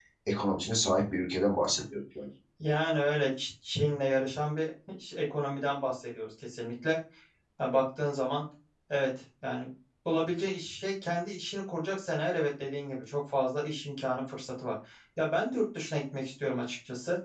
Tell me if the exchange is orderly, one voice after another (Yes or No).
Yes